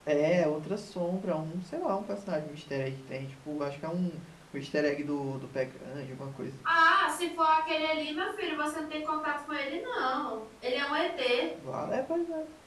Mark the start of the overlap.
none

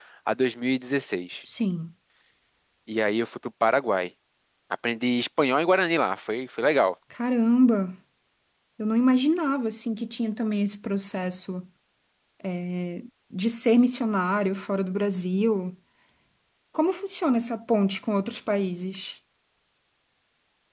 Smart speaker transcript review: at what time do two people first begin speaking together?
none

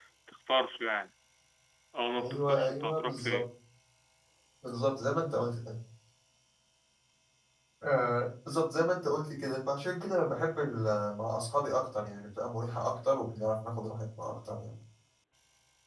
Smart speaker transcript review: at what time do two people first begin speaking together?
2.2 s

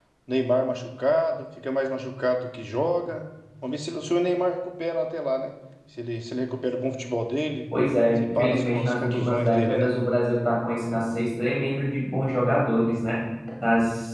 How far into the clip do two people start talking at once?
8.2 s

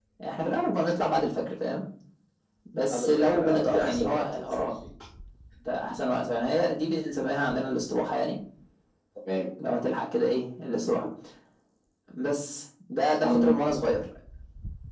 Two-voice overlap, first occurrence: 2.9 s

